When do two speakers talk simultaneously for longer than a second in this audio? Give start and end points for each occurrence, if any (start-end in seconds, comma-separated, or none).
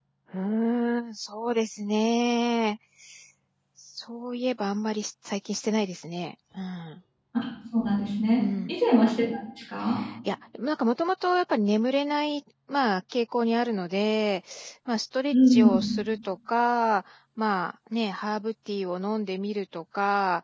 none